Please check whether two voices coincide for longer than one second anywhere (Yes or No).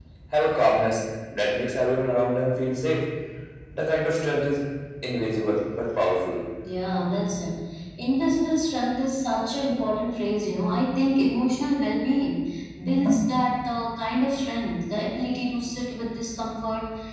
No